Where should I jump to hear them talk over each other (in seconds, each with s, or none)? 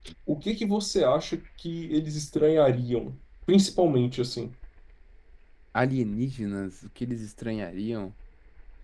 none